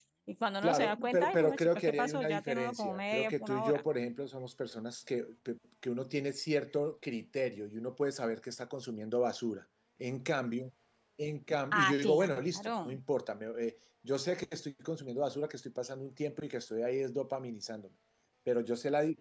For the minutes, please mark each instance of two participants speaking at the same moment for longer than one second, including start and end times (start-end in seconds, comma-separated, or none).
0.6-3.8, 11.8-13.0